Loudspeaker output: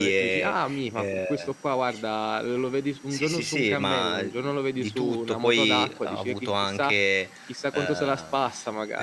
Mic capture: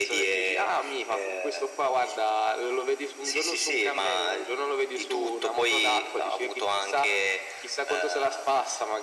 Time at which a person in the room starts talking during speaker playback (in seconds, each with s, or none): none